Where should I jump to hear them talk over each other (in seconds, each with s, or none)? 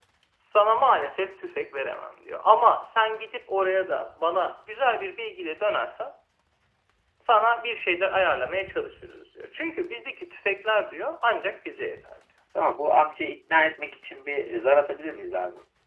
none